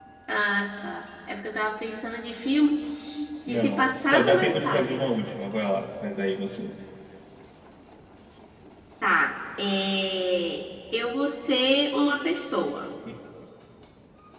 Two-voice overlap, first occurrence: 3.5 s

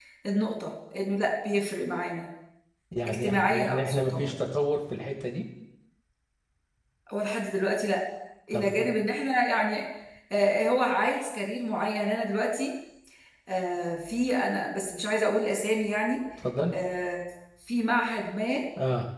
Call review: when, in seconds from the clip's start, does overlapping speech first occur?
3.1 s

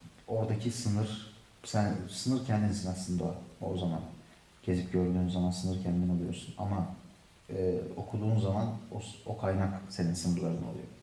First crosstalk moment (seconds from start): none

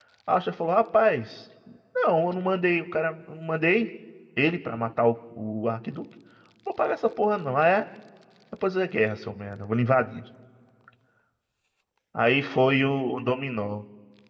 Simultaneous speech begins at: none

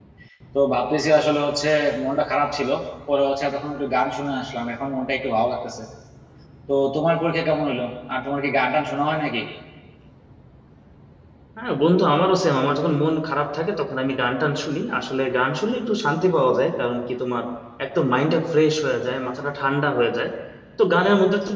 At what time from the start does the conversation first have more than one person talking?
none

